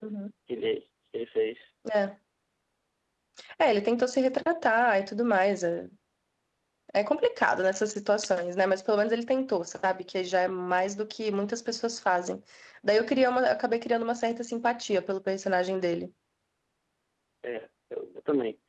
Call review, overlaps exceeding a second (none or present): none